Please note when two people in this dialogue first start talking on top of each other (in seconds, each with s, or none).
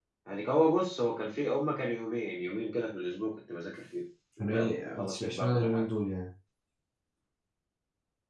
4.4 s